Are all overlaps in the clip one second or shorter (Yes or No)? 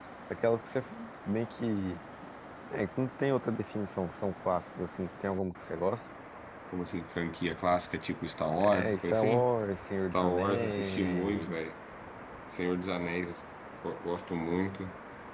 No